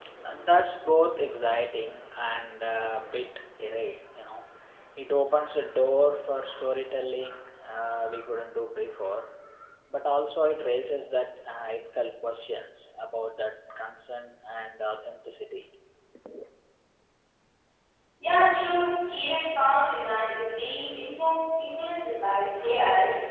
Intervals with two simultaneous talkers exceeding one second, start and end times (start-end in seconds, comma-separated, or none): none